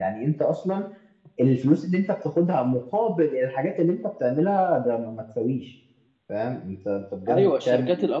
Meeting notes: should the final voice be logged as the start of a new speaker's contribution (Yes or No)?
Yes